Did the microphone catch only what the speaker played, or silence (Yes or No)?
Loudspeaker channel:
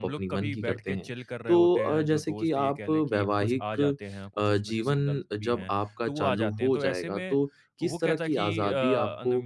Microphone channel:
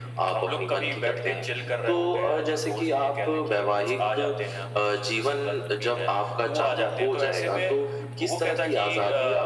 Yes